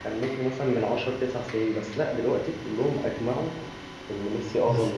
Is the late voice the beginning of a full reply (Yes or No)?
Yes